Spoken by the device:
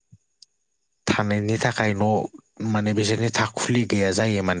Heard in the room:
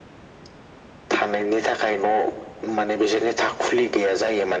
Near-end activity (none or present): none